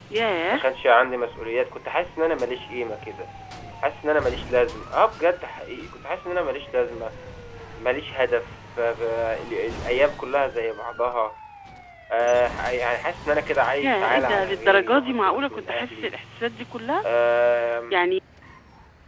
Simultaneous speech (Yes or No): Yes